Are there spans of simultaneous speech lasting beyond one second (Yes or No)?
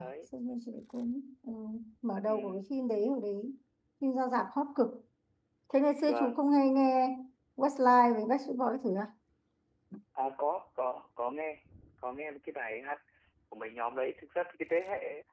No